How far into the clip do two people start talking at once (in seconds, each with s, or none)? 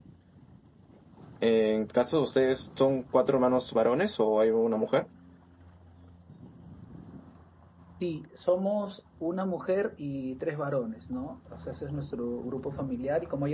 none